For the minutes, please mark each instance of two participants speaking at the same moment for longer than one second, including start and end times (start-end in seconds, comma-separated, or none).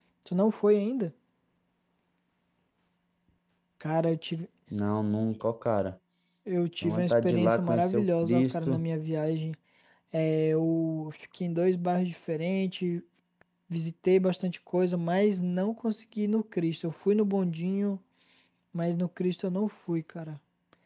6.8-8.8